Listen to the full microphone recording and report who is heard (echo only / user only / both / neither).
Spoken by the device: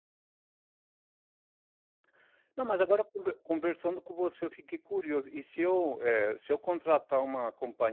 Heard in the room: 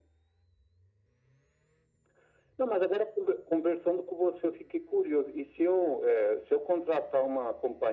echo only